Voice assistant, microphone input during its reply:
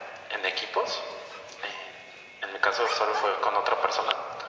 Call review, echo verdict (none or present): present